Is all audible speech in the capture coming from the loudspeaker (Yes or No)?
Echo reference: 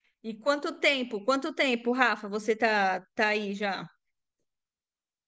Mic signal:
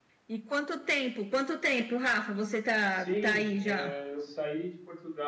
No